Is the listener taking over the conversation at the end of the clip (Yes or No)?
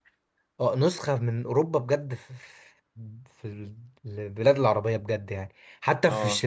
No